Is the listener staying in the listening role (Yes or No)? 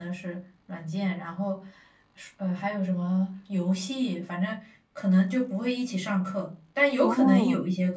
Yes